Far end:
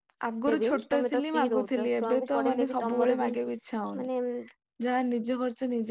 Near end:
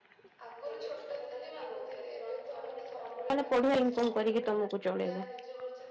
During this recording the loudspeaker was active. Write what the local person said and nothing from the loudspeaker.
ମାନେ ପଢିଆ ଇନକମ କରିକି ତମକୁ ଚଳେଇବେ।

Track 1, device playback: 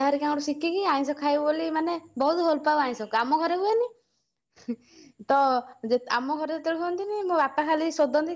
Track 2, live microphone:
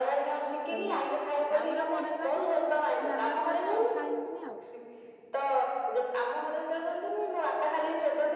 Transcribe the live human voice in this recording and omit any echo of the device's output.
ଏମିତି। ତାପରେ ବଡ ହେଲାଠୁ ଜାଣିଲା ପରେ ଆଉ ଖାଇଲିନି ଆଉ।

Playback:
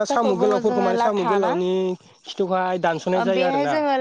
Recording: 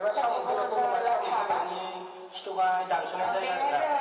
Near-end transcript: none

